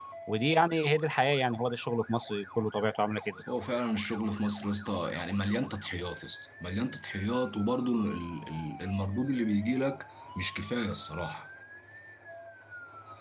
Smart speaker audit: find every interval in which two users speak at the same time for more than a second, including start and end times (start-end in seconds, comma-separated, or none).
none